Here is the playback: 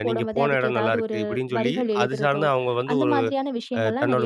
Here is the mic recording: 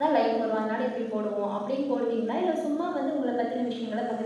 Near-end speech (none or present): present